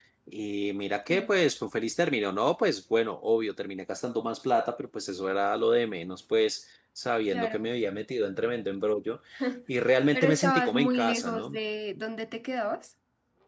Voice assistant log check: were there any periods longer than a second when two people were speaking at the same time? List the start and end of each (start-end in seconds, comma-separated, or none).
10.1-11.6